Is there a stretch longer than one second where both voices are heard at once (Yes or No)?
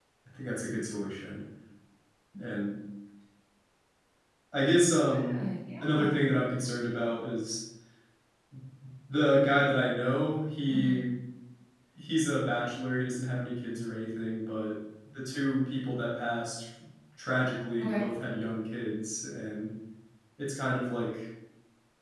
No